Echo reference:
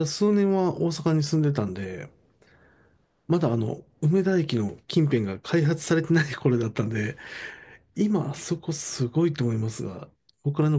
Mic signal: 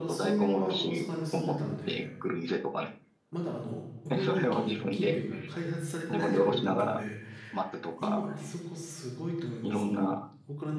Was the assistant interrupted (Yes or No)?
Yes